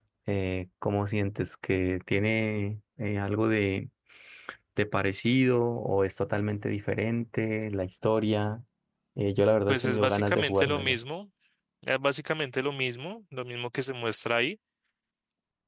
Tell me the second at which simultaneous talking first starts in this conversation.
9.7 s

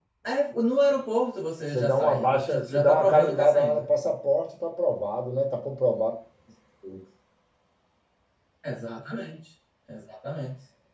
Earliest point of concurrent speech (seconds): 1.7 s

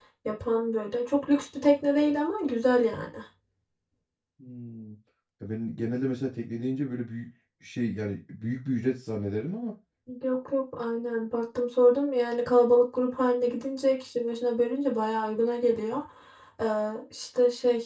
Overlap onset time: none

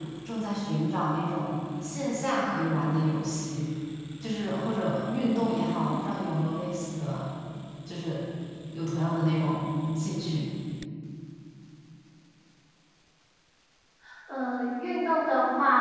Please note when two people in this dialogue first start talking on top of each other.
none

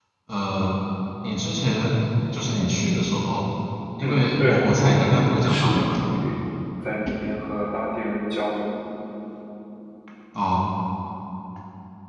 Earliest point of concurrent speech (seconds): 4.0 s

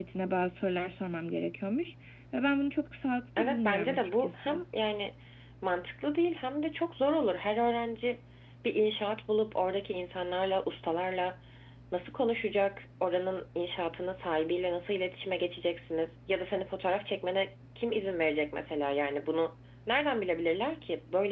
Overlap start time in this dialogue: 3.4 s

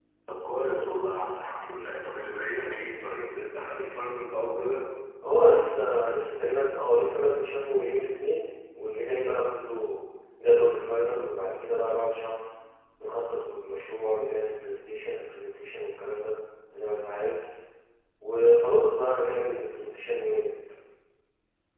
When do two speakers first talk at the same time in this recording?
none

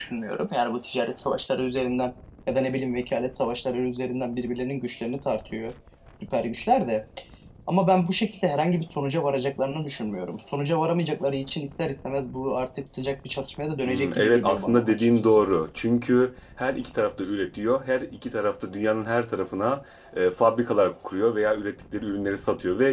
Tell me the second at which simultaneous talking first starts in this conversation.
13.8 s

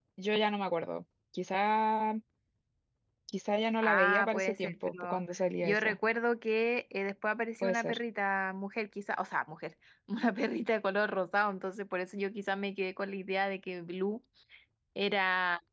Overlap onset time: 3.9 s

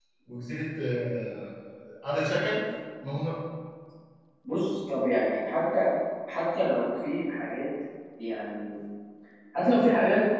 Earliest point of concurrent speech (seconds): none

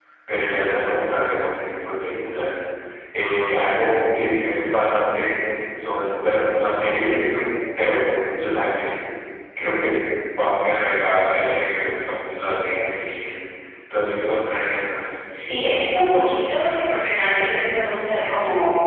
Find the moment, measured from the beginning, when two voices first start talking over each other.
none

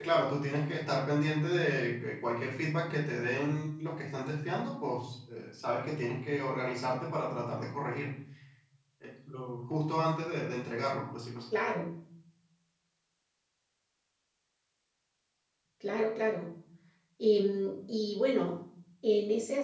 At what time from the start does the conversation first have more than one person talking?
none

